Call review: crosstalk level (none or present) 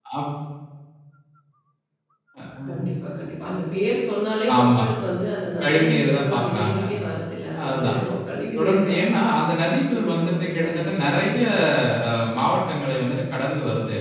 present